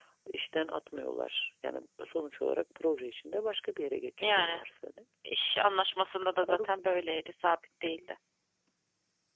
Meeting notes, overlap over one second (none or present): none